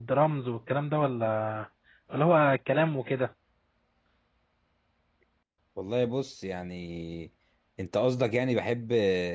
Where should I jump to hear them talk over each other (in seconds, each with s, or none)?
none